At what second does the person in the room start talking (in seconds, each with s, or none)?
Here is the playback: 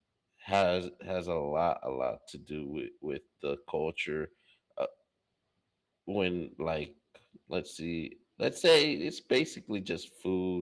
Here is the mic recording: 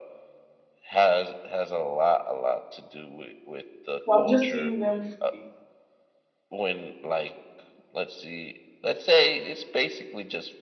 4.0 s